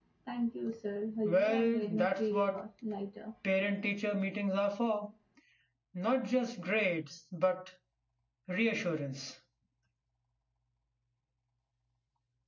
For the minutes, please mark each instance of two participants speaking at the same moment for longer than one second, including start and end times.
1.2-2.6

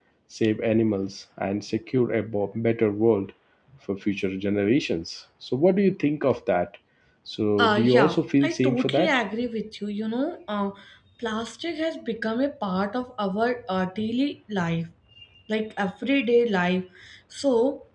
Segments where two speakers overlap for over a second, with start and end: 7.6-9.2

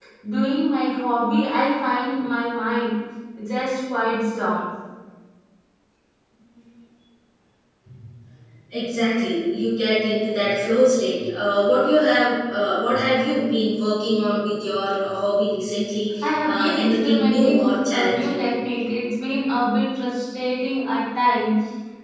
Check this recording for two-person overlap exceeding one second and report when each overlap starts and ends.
16.2-18.4

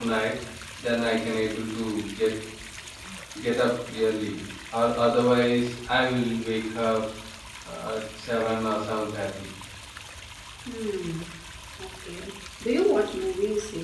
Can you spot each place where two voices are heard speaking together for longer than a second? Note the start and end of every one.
none

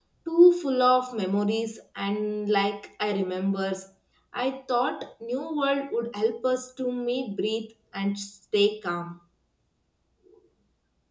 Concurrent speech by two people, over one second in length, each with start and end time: none

